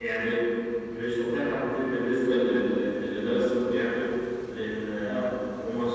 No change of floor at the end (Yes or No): Yes